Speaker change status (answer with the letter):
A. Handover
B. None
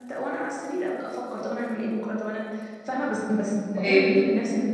B